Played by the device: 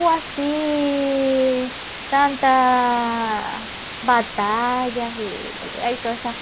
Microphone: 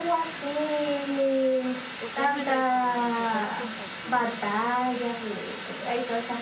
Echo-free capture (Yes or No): No